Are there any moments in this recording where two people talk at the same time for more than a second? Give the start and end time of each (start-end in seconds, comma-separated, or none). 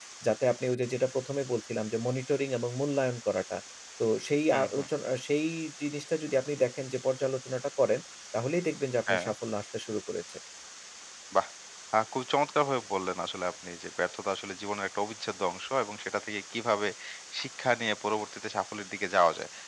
none